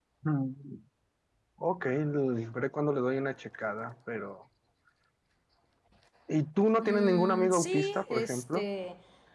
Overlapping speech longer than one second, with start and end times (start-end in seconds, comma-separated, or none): 6.8-8.6